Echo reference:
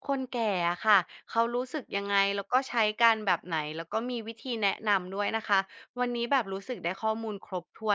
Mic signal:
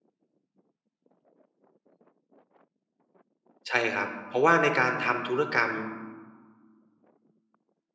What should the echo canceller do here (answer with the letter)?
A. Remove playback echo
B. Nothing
B